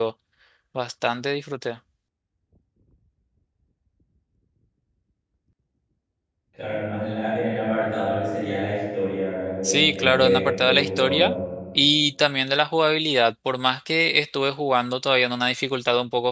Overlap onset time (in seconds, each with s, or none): 9.6 s